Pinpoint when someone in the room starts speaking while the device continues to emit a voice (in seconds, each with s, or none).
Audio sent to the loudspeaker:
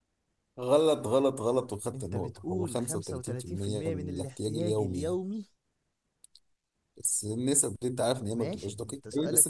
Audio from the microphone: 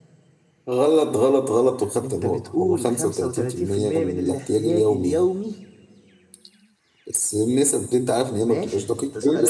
none